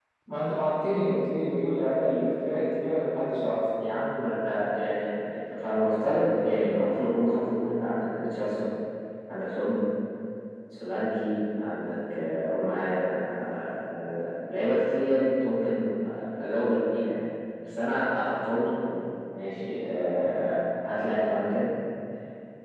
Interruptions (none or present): none